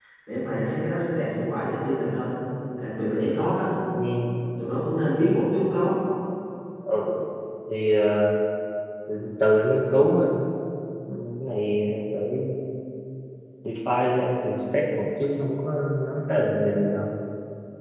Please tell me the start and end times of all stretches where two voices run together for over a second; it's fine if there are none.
none

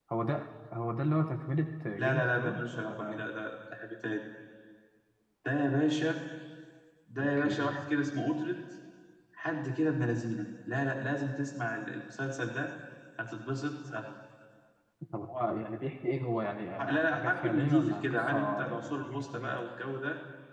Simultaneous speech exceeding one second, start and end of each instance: 2.0-3.3, 16.8-19.6

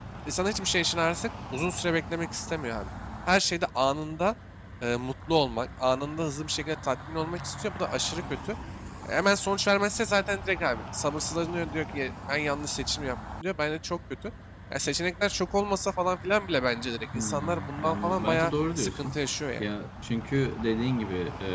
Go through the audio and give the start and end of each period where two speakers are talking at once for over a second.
17.1-19.2

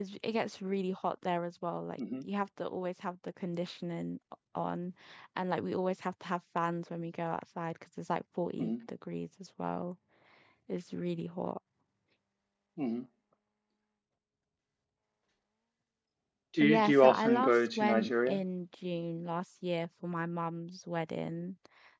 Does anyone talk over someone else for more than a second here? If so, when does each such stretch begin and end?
16.6-18.4

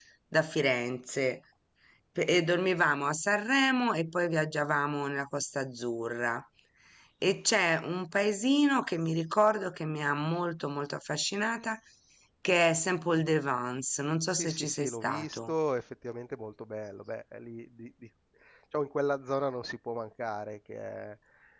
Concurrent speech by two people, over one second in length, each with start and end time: 14.3-15.5

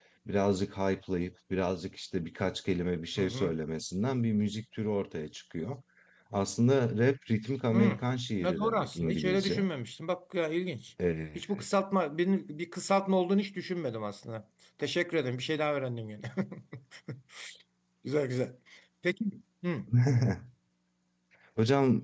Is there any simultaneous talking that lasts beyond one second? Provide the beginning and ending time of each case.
8.4-9.7

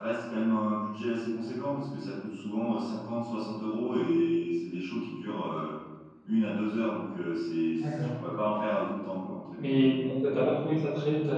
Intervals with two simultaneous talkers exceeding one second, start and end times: none

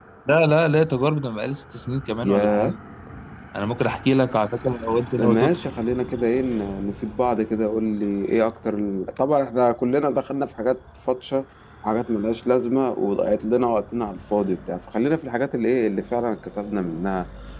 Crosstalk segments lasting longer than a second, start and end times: none

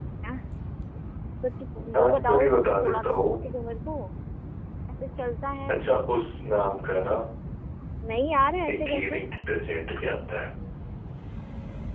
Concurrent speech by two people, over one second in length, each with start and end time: 2.0-3.4

